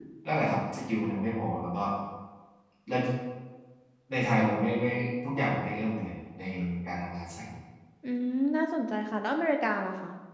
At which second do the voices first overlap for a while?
none

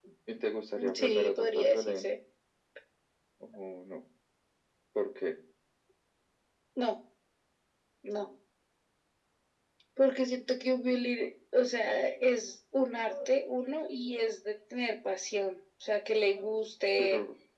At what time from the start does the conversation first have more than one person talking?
0.8 s

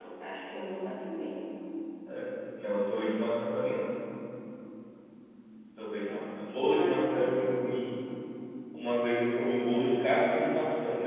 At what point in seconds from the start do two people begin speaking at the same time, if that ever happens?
6.0 s

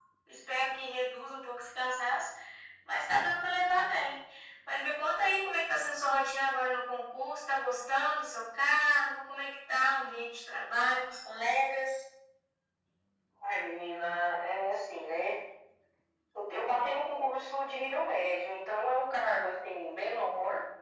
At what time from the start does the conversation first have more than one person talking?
none

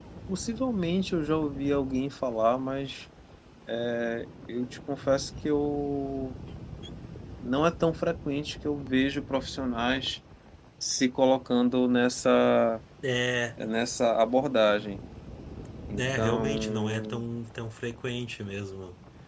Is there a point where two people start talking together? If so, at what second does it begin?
16.0 s

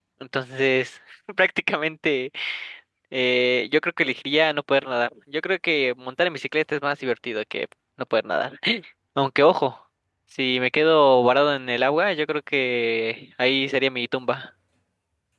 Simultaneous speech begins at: none

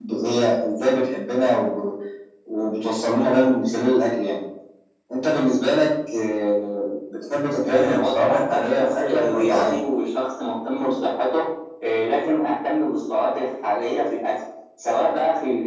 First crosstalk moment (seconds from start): 7.6 s

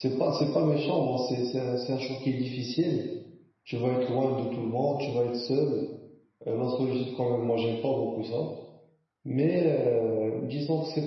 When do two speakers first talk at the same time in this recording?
none

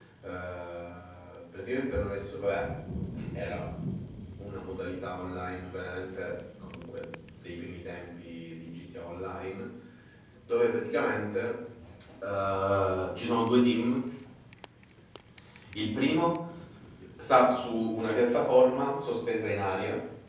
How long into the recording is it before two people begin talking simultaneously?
none

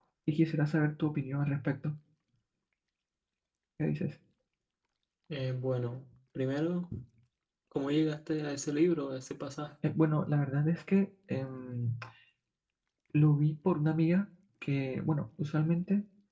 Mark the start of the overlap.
none

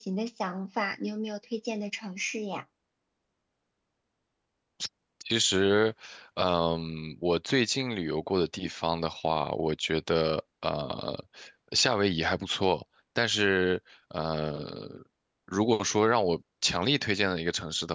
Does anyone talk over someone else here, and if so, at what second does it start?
none

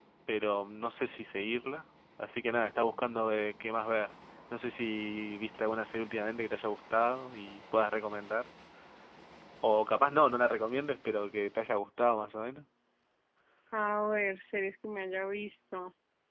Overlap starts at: none

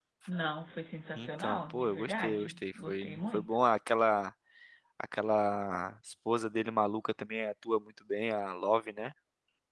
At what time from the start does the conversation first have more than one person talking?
1.1 s

